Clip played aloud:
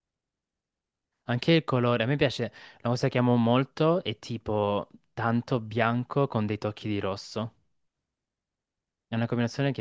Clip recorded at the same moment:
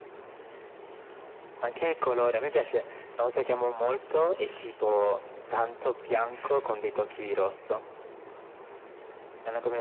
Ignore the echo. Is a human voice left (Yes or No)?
No